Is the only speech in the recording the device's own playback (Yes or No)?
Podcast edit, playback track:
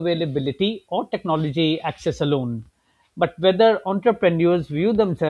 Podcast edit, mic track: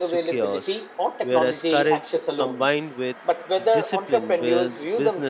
No